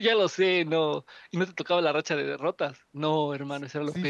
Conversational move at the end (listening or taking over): taking over